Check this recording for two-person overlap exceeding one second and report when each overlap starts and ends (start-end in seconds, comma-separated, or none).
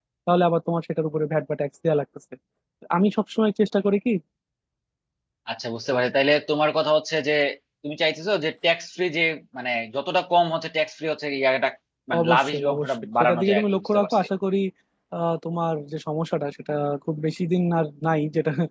12.2-14.2